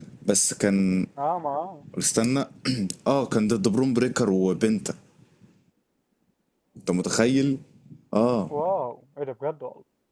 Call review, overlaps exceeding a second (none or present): none